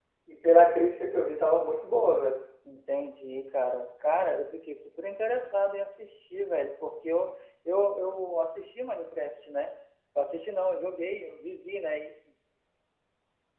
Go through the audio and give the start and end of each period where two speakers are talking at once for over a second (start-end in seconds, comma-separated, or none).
none